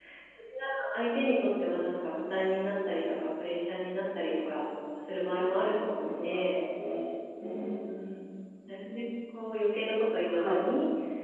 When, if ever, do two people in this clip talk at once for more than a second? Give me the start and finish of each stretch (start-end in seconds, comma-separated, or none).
5.2-6.6